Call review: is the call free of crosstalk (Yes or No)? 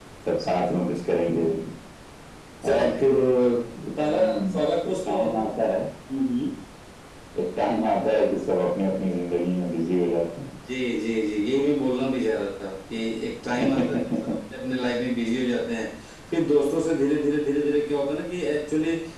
No